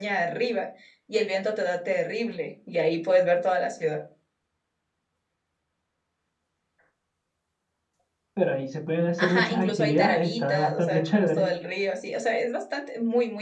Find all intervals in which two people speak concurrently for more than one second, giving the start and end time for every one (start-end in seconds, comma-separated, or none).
9.2-11.5